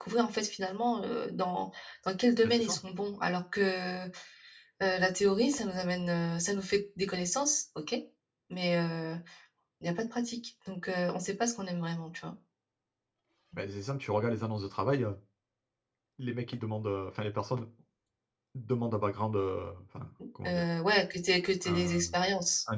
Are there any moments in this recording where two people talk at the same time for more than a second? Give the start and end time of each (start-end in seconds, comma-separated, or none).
none